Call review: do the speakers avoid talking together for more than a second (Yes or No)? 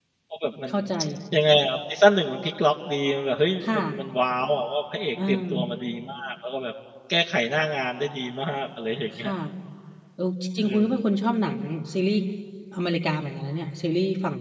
Yes